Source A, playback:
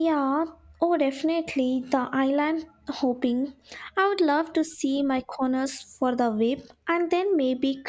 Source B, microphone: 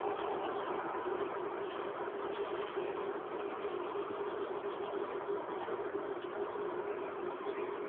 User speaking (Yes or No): No